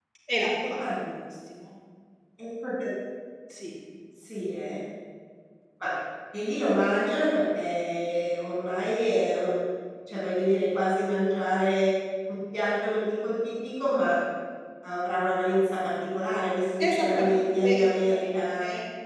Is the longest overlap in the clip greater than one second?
Yes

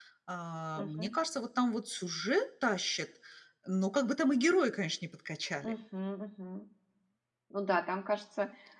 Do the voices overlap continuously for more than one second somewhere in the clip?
No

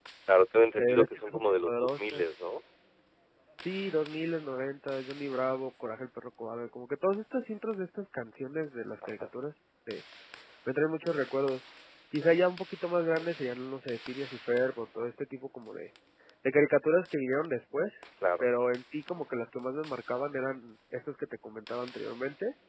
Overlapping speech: Yes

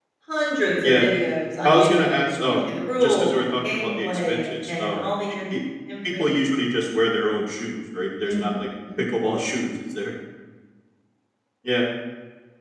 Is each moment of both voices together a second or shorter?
No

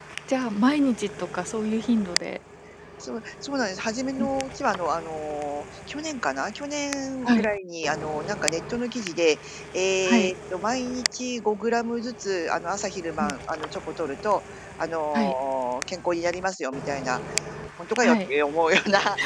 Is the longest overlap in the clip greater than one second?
No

